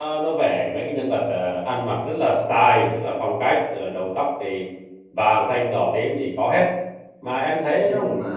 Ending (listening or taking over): taking over